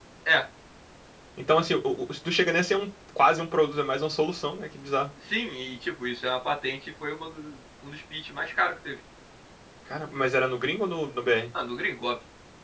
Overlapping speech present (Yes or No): No